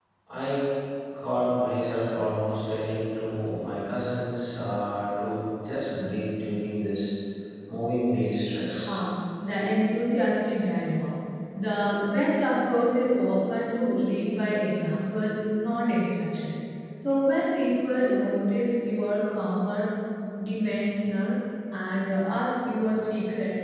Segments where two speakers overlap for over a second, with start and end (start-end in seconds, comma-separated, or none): none